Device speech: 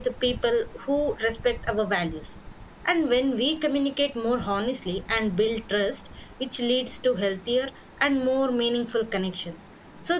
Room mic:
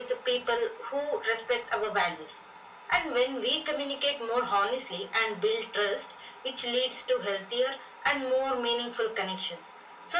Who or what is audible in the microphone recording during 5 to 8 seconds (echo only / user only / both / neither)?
echo only